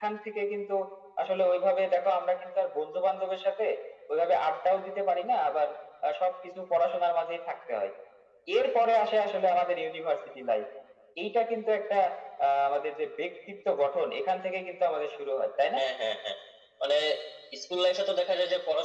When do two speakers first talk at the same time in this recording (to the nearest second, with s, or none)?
none